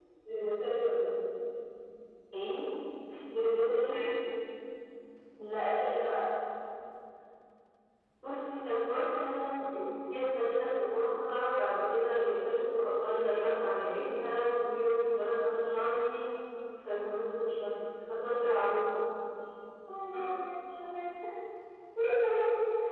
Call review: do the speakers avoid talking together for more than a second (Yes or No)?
Yes